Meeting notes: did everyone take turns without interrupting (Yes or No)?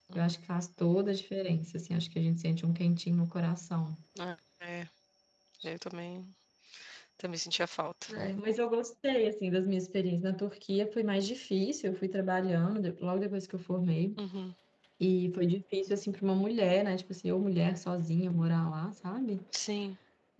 Yes